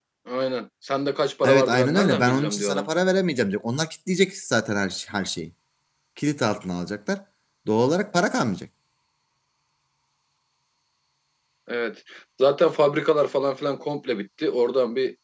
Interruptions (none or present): present